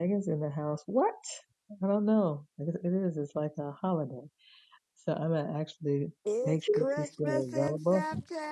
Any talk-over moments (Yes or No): Yes